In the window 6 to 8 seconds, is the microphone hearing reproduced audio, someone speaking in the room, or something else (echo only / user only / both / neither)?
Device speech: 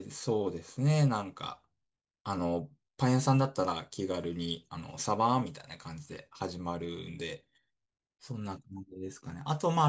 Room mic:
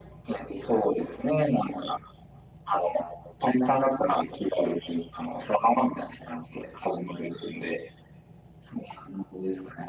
echo only